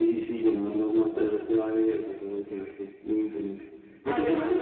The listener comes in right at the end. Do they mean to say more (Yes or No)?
No